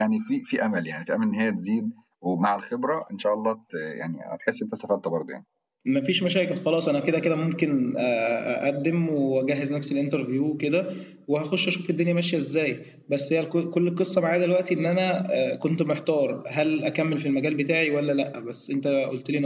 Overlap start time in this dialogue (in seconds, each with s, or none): none